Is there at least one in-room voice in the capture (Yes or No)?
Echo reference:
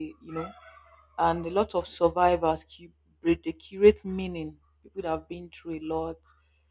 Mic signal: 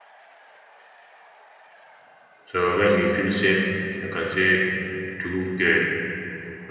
Yes